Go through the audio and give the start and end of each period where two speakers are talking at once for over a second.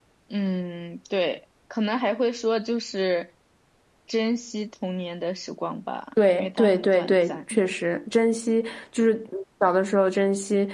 6.3-7.6

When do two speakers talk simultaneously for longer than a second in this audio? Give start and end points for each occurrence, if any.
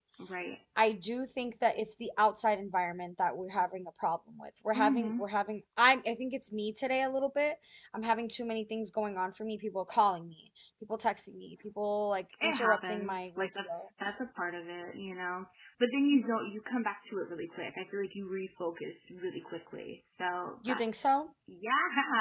12.4-13.9

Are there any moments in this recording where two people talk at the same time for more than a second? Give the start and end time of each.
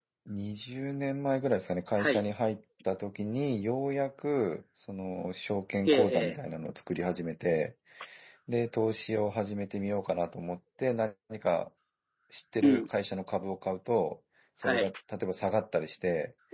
none

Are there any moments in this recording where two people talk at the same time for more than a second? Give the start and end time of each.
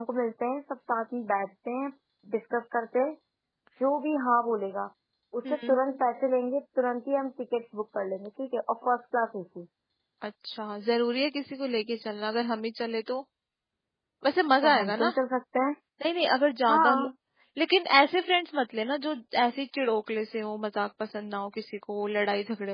none

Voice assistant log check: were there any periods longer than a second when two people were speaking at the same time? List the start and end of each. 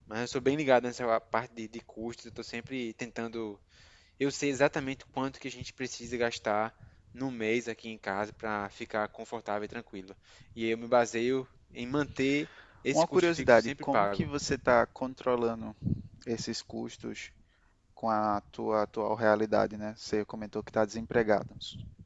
12.9-14.2

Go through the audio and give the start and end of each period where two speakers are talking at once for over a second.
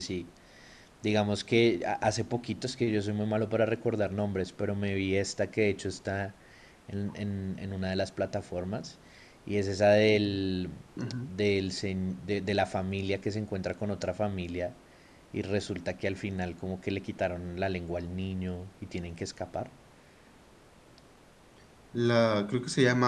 none

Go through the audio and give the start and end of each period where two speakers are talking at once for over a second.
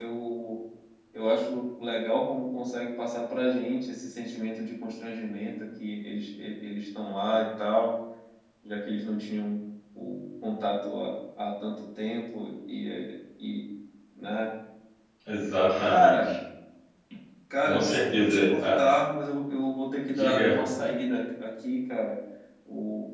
17.6-18.8

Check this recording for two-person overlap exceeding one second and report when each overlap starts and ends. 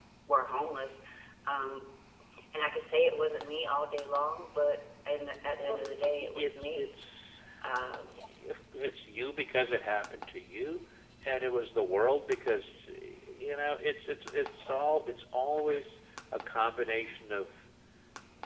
5.7-6.9

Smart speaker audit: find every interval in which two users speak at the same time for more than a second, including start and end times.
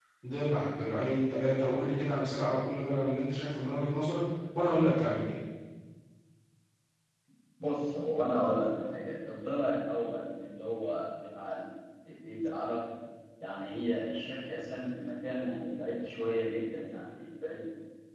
none

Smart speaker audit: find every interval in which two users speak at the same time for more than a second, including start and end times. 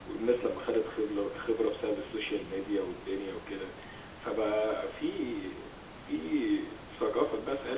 none

